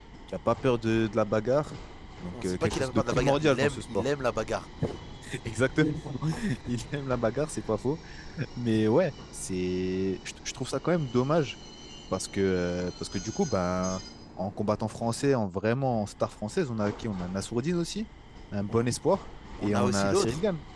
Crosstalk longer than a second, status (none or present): present